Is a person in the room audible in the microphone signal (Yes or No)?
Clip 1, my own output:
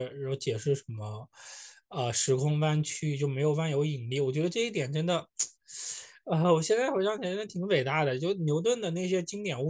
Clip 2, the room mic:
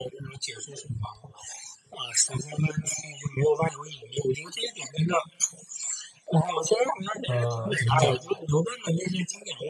Yes